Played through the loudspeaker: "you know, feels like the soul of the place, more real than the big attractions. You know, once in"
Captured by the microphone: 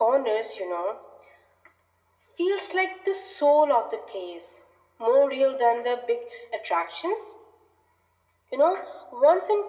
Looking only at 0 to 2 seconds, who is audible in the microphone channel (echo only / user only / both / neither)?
echo only